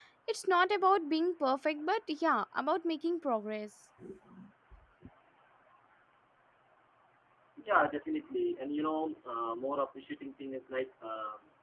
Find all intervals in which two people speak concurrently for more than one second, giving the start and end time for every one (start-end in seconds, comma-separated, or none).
none